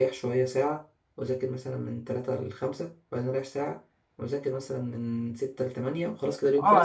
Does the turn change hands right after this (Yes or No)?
Yes